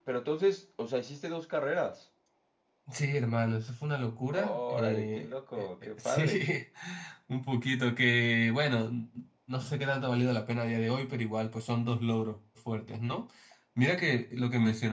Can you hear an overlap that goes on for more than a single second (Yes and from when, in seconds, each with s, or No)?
Yes, from 4.3 s